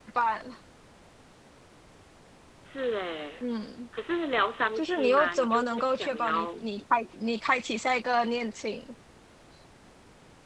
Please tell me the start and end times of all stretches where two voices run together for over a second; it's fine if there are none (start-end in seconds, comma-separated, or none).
4.8-6.5